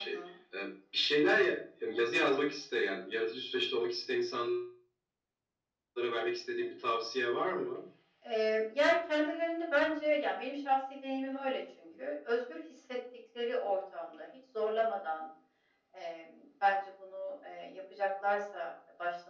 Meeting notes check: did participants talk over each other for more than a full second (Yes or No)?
No